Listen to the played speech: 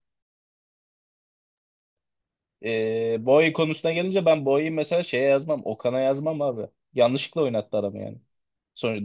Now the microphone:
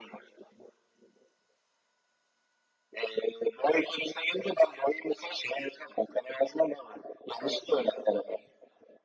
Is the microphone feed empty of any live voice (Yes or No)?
Yes